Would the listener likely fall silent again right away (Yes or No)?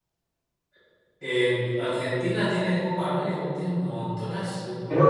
No